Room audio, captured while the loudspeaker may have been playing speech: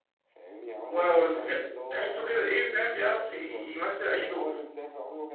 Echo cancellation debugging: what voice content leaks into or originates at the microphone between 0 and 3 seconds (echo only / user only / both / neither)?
both